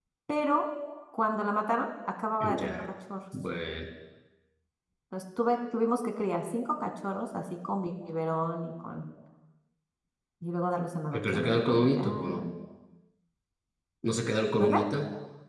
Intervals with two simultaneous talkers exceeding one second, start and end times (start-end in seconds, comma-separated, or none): 11.1-12.4